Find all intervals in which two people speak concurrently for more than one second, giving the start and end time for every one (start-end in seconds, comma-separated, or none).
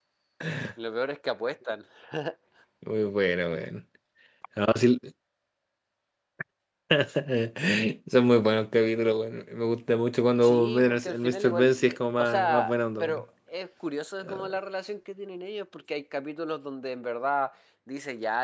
10.4-13.2